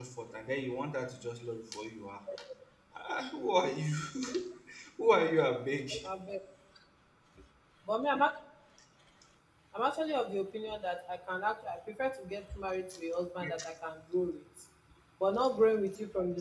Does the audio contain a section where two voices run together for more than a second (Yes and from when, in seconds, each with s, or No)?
No